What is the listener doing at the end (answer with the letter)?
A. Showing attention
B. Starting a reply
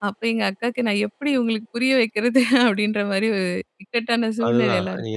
B